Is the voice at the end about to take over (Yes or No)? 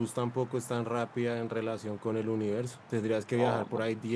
No